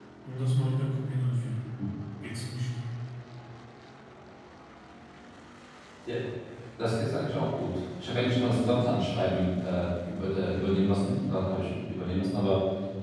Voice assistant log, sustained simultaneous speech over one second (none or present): none